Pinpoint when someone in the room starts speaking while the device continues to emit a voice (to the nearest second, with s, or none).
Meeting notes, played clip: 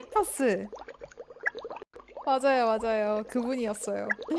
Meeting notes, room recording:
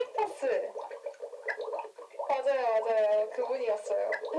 none